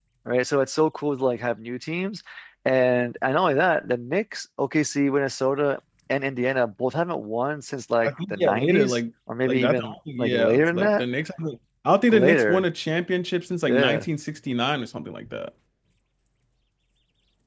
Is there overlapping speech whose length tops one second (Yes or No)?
Yes